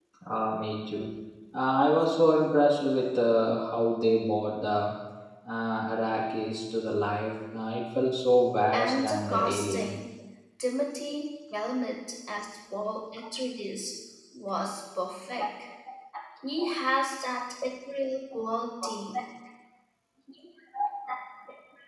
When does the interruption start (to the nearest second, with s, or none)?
9 s